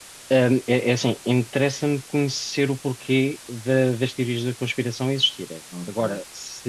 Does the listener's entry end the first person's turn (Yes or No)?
No